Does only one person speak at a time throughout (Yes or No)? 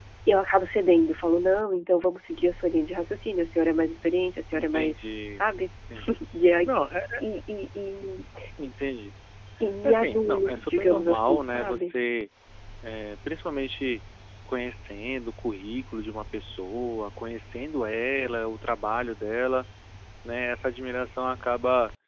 No